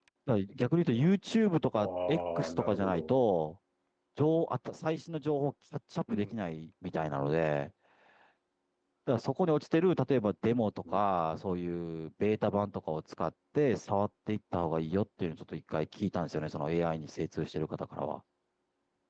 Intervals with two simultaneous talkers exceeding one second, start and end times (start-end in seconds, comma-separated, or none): 1.8-3.1